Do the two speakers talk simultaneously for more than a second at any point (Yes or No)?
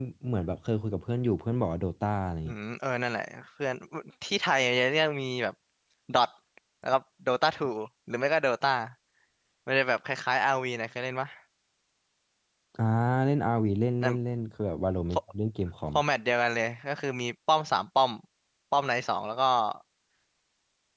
No